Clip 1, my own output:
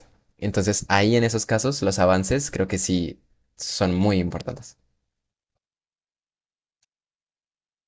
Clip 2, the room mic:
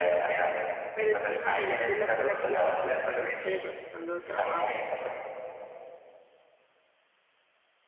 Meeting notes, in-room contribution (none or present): present